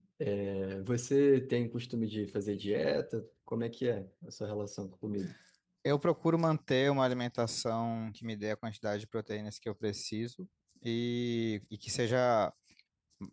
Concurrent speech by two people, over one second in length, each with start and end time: none

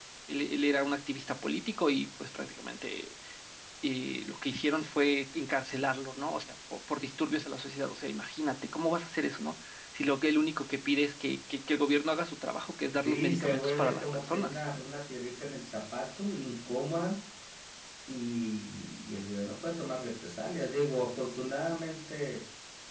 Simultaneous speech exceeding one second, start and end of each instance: 13.0-14.6

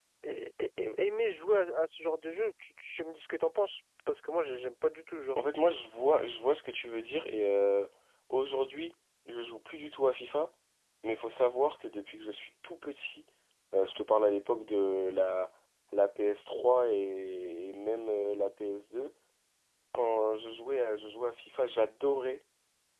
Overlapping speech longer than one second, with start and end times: none

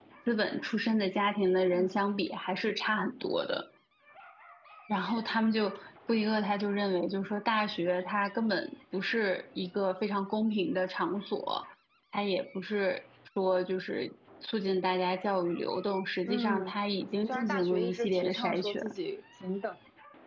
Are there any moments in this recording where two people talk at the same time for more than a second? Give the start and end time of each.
17.3-18.8

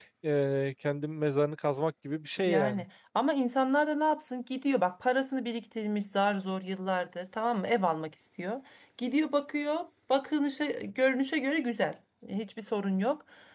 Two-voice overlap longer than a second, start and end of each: none

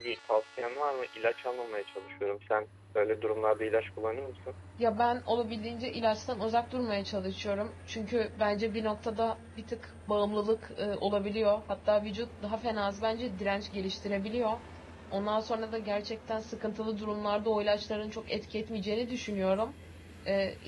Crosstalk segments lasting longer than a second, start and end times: none

